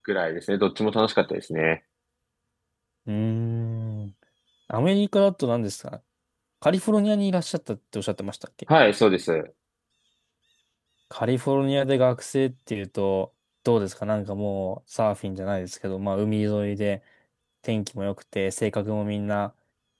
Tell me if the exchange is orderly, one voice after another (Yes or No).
Yes